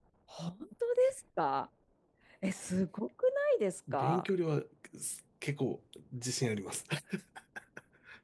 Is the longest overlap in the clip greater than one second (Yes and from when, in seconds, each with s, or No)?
No